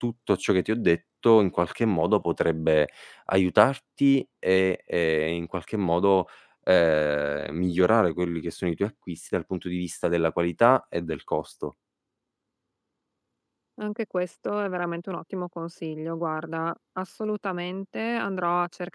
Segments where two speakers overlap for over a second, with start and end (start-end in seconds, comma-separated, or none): none